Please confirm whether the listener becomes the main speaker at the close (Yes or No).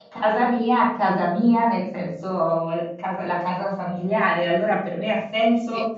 No